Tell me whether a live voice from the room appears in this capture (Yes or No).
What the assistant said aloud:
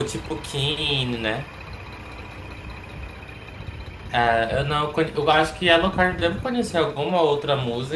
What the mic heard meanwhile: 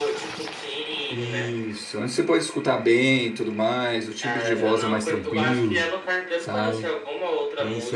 Yes